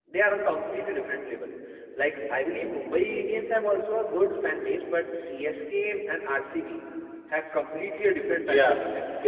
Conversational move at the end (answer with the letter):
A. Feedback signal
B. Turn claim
B